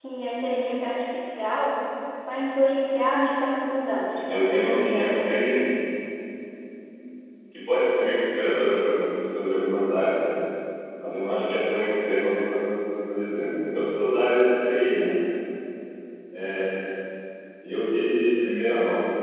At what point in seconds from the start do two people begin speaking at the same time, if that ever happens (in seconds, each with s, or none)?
4.3 s